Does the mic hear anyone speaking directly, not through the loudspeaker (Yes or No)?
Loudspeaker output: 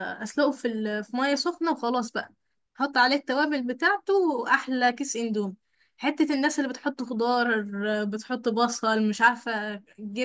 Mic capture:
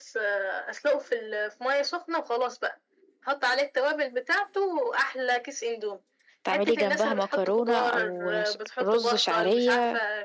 Yes